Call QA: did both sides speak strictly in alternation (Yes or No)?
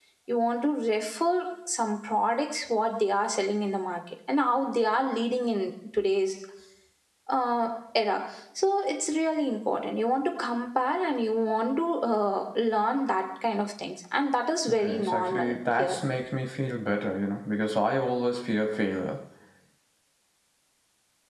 No